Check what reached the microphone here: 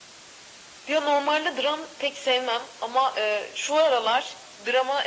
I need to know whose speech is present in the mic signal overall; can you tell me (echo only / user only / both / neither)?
echo only